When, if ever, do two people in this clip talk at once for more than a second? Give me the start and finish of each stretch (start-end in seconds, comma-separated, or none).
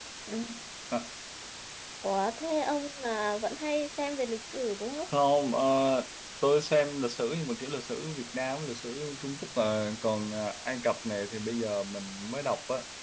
none